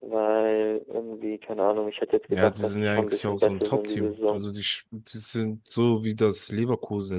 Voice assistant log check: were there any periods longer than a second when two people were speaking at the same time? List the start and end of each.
2.3-4.4

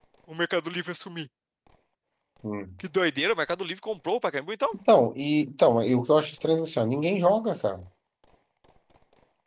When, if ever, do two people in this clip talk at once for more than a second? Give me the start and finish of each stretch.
none

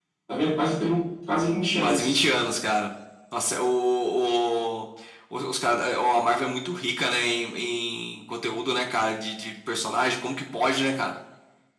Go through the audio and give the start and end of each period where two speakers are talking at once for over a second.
none

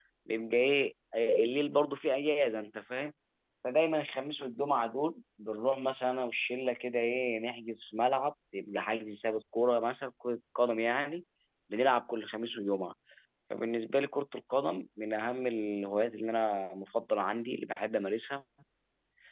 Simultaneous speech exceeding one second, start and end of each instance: none

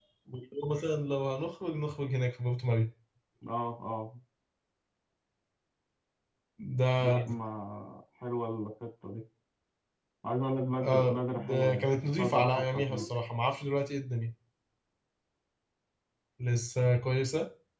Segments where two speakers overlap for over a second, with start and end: 10.8-13.1

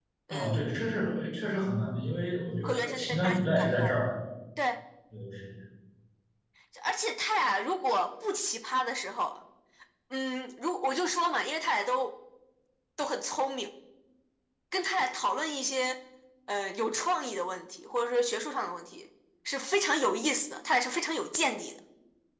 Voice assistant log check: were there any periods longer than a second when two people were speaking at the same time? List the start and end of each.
2.6-4.0

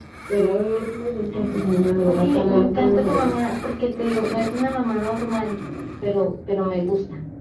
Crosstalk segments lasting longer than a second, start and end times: 2.1-3.5

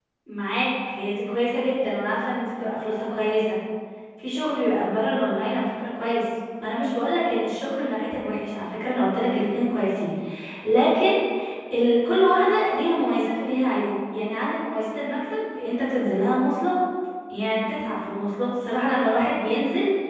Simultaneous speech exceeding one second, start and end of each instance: none

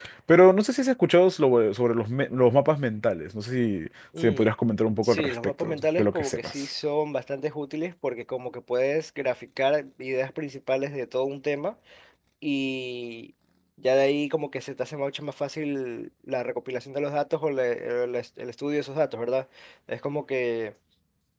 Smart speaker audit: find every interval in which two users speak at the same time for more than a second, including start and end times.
5.0-6.7

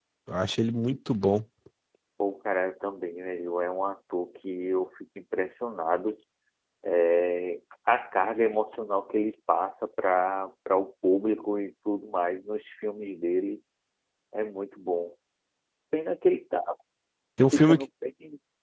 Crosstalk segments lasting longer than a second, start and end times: none

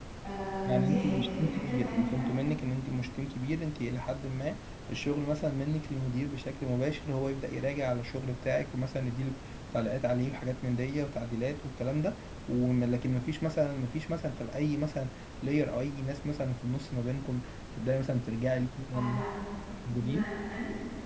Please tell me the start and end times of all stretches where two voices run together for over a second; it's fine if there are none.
0.7-2.3

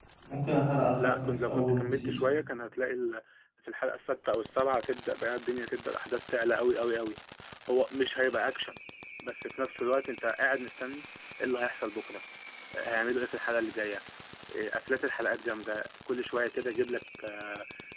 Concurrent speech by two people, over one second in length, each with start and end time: 0.9-2.2

